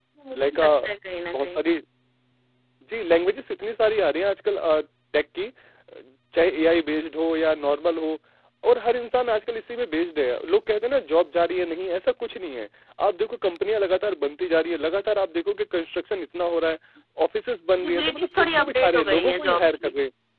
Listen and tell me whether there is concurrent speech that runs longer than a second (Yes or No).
Yes